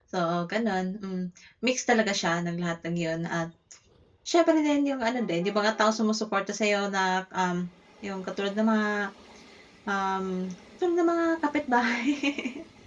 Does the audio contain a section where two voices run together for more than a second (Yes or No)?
No